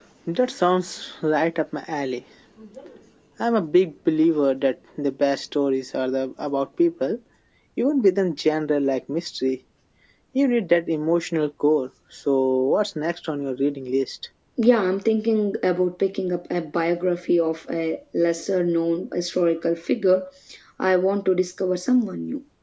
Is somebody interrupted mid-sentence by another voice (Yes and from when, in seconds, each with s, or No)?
No